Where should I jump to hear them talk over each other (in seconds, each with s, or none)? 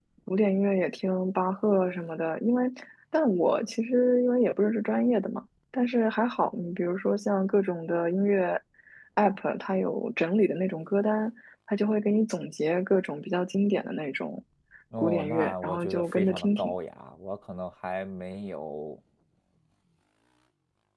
15.0 s